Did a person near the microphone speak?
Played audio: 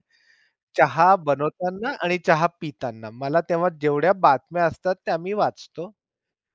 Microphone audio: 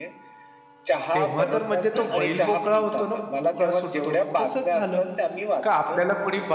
Yes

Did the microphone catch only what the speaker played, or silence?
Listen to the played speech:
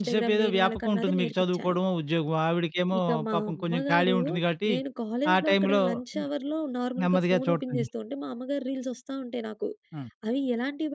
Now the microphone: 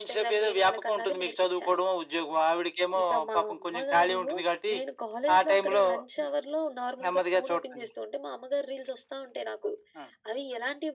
Yes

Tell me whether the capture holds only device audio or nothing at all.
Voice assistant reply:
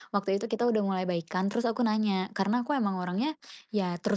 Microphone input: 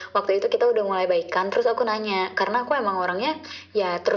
Yes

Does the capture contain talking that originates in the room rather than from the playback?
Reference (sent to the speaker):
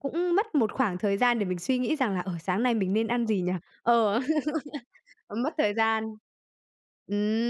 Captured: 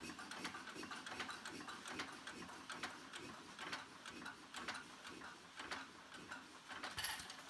No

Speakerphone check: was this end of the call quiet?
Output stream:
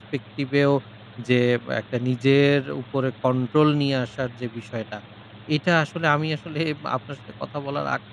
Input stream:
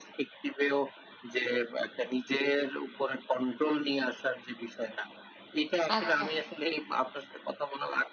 No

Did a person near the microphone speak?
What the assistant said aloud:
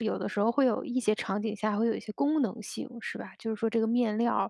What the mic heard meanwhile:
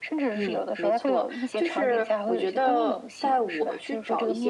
Yes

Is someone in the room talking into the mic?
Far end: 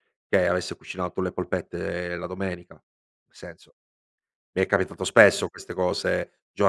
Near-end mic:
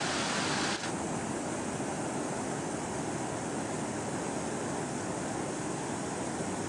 No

